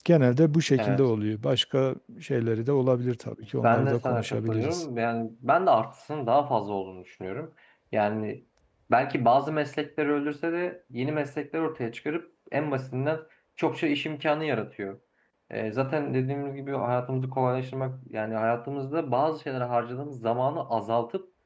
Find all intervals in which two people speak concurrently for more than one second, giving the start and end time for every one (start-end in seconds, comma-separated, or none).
3.6-4.8